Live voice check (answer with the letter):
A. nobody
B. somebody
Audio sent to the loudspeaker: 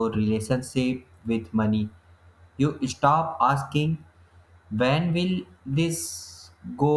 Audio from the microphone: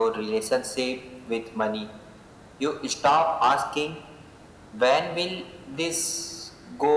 A